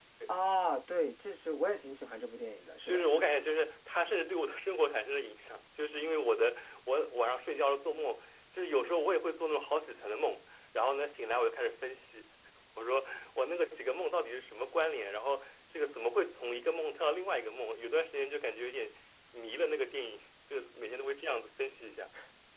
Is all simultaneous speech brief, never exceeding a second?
Yes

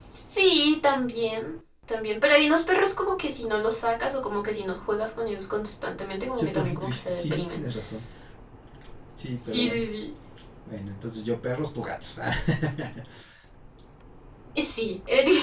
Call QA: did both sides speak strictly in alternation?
No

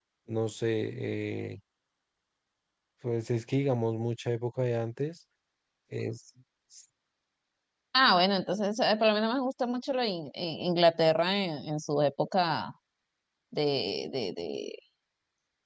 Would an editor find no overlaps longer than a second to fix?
Yes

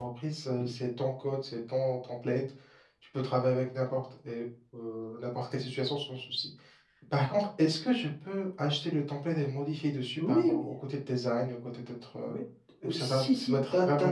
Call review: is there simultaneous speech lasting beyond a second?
Yes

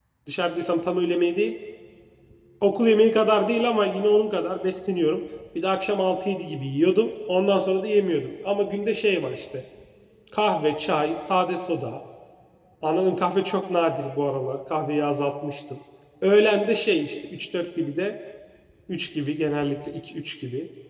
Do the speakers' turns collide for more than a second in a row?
No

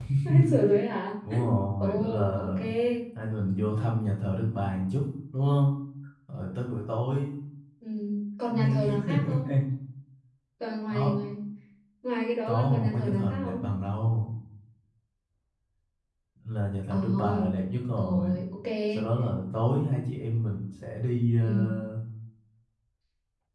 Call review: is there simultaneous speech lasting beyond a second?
Yes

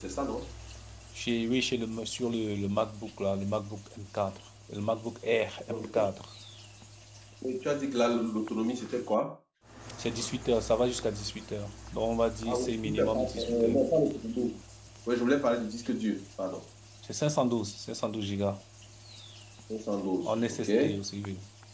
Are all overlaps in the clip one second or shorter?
No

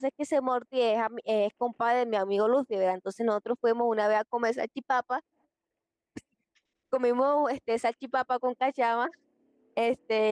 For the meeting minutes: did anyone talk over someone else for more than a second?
No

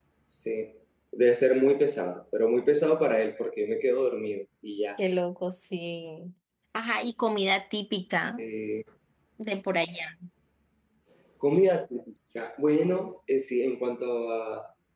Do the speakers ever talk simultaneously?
No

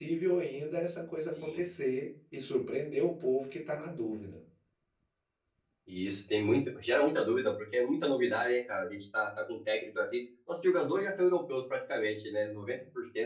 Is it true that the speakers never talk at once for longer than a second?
Yes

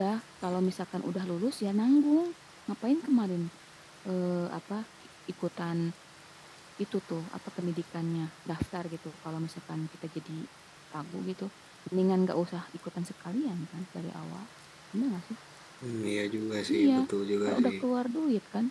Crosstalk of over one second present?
No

